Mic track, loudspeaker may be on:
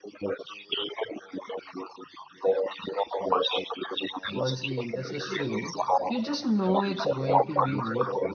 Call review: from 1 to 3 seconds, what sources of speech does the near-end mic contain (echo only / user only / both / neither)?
echo only